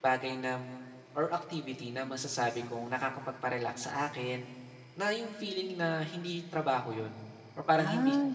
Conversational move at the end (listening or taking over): listening